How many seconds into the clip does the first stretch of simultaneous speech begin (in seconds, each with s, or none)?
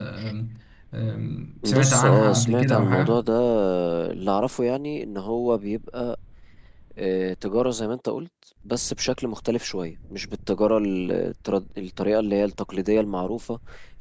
1.6 s